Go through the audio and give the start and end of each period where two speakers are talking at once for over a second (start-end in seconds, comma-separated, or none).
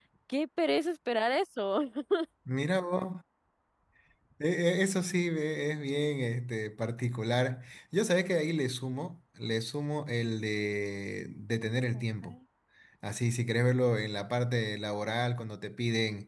none